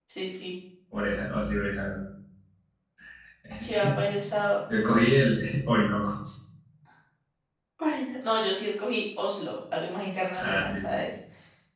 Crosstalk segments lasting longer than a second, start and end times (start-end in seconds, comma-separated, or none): none